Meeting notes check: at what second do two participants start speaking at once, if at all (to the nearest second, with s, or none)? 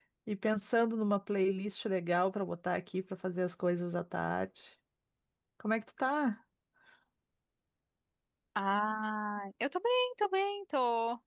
none